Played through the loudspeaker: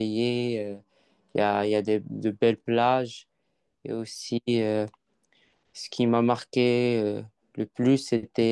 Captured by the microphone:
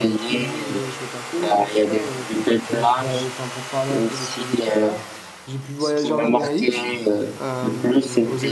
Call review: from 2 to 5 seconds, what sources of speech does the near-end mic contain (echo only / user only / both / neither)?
both